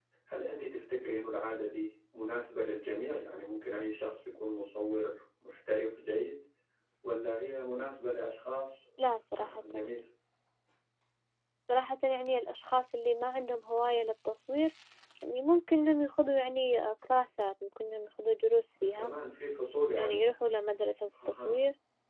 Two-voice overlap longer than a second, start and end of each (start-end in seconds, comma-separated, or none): none